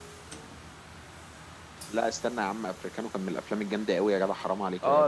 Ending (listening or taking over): taking over